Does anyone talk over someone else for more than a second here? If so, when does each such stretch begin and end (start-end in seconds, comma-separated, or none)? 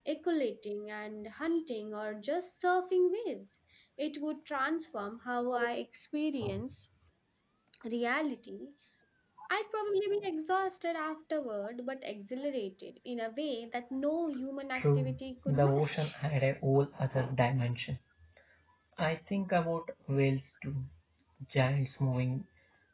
14.7-16.1